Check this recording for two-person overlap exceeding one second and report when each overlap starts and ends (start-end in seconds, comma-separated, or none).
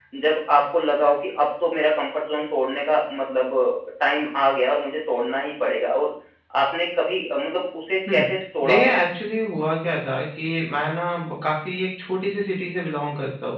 none